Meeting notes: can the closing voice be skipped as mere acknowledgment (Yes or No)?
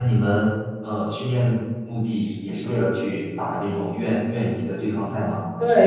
No